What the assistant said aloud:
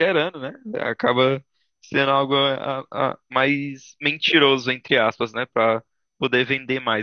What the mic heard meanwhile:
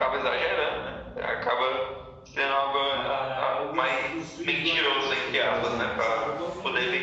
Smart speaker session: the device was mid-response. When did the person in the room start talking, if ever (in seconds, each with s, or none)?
2.9 s